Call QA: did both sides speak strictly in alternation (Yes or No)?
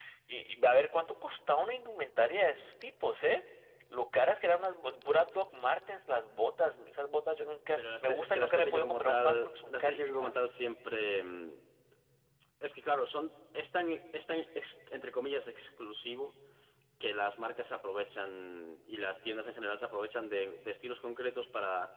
No